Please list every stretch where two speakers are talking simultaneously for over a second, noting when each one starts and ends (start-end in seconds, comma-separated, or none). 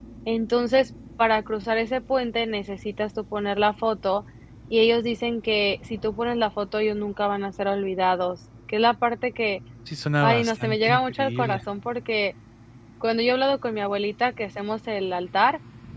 10.2-11.6